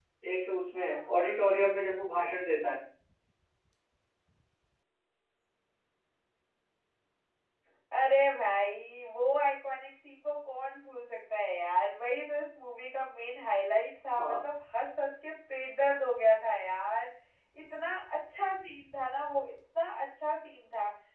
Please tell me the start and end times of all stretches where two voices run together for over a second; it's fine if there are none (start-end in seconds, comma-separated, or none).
none